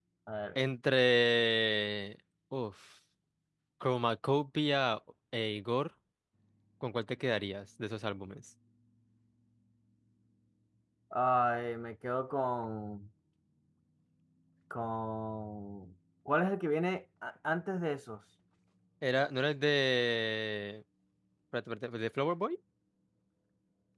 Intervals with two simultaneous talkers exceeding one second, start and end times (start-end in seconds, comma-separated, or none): none